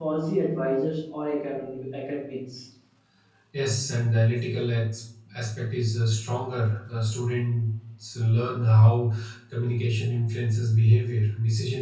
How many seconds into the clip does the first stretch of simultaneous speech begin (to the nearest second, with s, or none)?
none